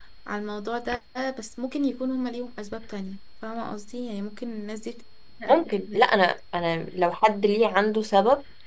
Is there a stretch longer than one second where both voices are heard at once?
No

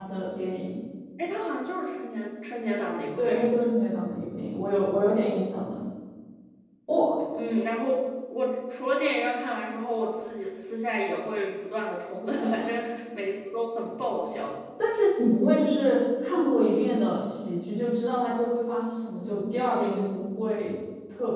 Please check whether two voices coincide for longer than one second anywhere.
No

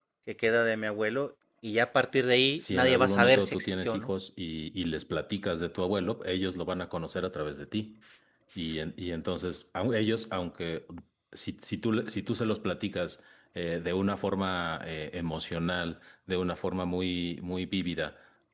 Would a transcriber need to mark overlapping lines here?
Yes, from 2.6 s

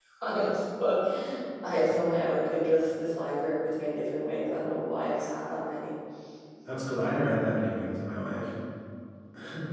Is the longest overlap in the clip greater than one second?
No

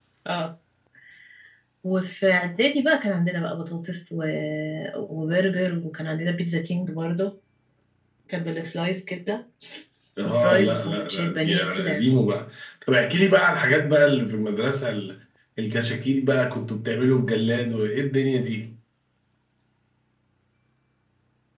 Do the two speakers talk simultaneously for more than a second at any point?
Yes, from 10.2 s

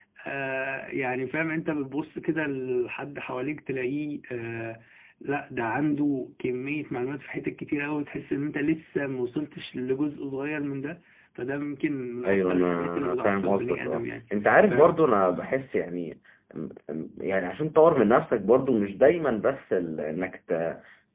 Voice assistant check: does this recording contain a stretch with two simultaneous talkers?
Yes, from 12.2 s

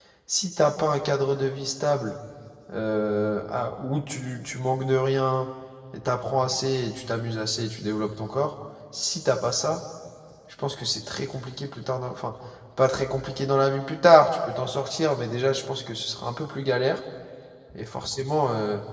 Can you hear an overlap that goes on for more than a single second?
No

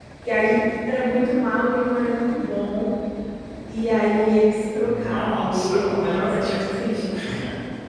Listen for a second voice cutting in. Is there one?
Yes, from 4.8 s

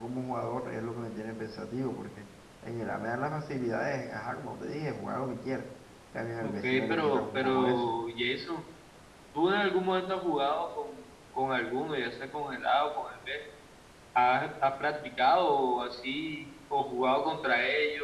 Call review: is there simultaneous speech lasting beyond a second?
Yes, from 6.4 s

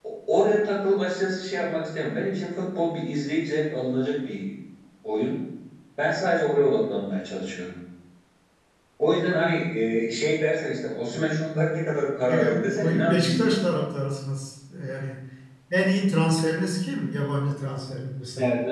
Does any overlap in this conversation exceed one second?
Yes, from 12.3 s

